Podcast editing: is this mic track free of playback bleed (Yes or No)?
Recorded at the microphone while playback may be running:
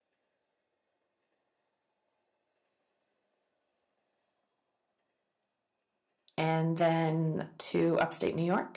Yes